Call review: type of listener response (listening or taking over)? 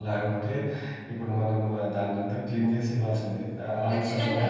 listening